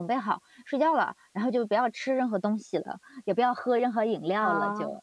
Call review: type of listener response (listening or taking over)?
taking over